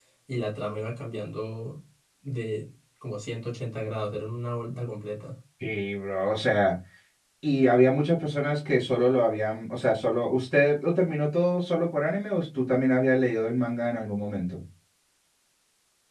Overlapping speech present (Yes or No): No